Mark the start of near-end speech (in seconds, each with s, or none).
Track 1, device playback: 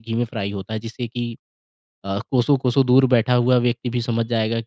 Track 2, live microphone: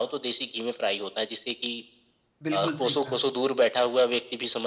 2.4 s